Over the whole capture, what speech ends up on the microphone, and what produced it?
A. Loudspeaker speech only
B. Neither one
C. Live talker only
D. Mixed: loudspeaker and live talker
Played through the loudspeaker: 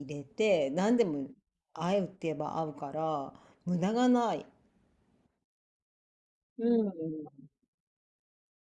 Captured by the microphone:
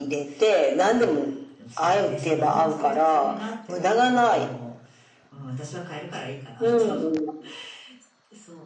D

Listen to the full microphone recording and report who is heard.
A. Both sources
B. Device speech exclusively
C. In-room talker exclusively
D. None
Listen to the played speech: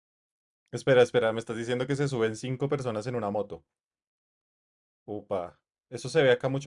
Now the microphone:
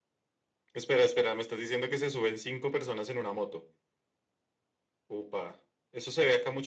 B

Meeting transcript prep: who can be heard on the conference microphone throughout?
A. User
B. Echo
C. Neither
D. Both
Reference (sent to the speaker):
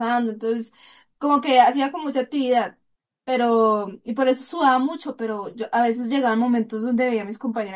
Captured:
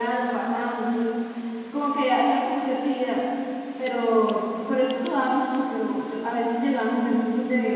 B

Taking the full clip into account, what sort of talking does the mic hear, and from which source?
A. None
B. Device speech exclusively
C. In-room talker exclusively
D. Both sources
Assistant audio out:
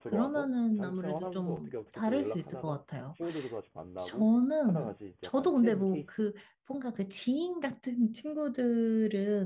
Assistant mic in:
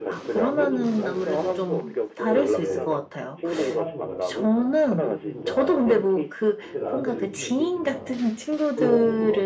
D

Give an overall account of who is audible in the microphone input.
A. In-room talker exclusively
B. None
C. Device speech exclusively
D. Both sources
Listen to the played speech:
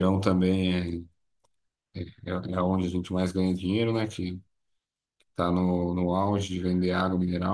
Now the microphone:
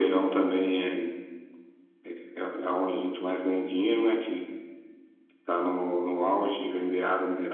C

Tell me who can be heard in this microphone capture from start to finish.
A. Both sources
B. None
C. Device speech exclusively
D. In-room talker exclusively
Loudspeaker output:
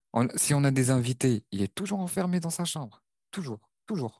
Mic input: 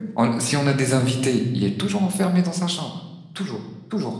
C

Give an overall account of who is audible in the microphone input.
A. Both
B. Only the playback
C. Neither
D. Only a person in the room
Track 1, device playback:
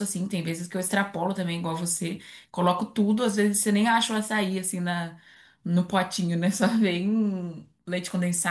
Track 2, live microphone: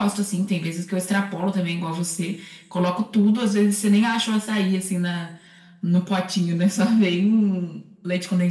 B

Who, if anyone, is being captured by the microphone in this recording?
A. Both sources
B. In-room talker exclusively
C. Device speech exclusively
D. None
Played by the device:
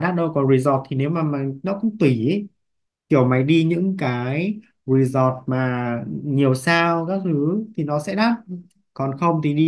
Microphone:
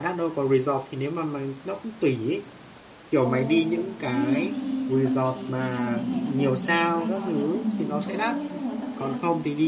A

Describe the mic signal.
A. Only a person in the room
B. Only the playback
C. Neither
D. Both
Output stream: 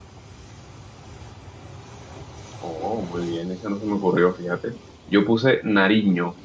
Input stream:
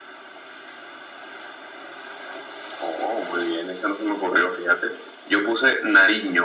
B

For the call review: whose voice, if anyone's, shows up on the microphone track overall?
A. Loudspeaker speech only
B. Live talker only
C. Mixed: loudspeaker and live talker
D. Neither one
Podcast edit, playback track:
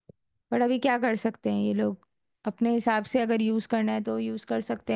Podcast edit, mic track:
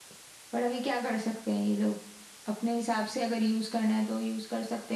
A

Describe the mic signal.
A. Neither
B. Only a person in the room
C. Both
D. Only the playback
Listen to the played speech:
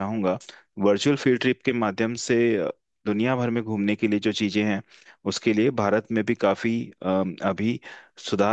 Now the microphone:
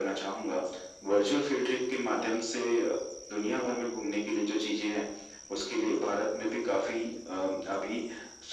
D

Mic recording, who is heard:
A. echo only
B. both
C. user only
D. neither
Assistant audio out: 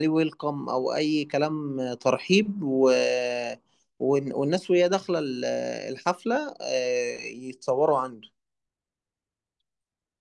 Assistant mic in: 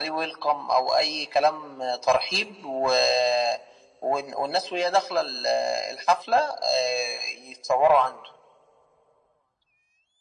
A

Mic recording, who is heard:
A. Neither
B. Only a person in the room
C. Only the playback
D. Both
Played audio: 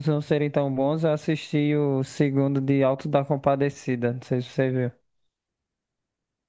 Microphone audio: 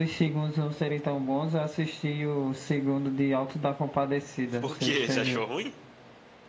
D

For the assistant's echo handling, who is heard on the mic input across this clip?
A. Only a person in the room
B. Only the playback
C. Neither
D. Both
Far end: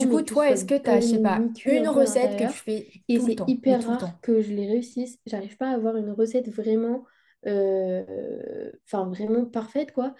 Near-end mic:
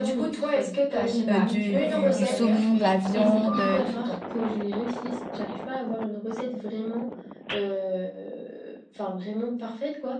D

